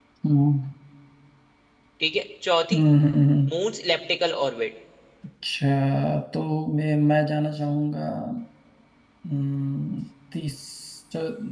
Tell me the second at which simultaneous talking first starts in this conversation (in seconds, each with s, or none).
none